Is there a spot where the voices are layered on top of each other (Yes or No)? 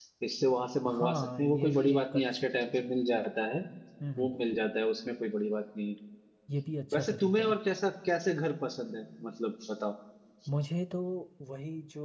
Yes